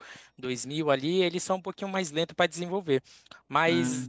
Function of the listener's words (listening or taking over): listening